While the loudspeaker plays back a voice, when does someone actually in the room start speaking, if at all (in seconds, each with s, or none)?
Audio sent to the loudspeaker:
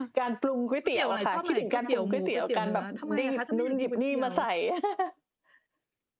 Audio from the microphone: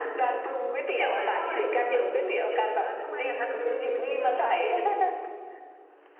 none